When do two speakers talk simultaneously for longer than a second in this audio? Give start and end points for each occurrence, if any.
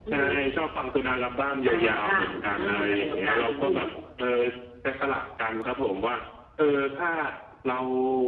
1.6-3.8

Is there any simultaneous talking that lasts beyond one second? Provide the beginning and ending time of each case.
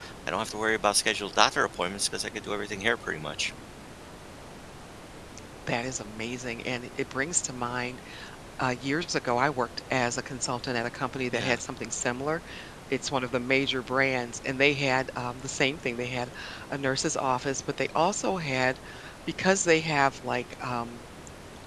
none

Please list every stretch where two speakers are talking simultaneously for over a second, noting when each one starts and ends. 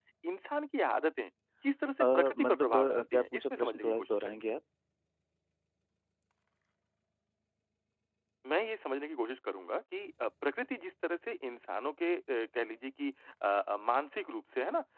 2.0-4.5

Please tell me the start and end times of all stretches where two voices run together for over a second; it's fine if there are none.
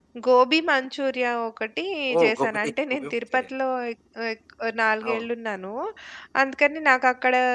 2.2-3.5

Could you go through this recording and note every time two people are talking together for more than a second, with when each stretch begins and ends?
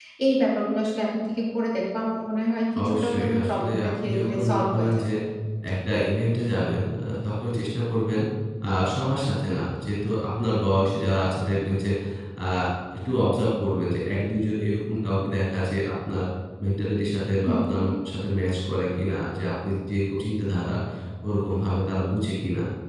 2.8-4.9

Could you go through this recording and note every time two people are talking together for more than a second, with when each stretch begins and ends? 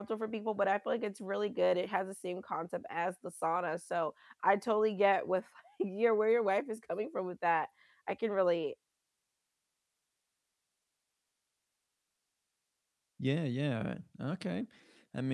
none

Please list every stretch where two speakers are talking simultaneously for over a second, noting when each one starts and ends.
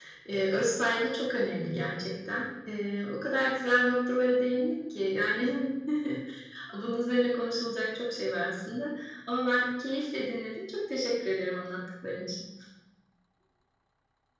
none

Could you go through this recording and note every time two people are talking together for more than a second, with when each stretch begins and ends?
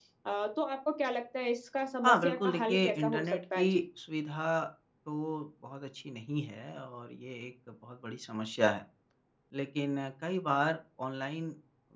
2.0-3.8

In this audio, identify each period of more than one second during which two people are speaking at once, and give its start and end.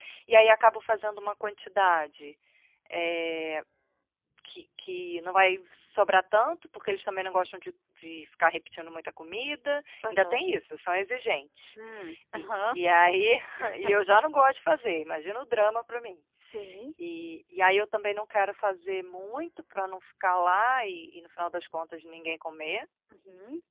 none

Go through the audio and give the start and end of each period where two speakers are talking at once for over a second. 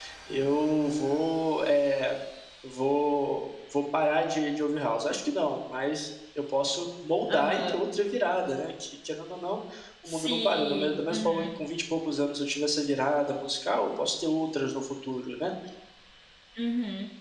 10.1-11.4

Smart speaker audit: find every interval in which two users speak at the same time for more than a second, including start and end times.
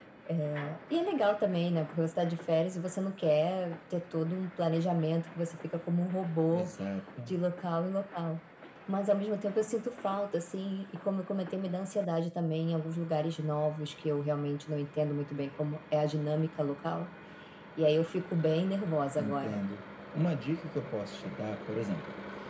none

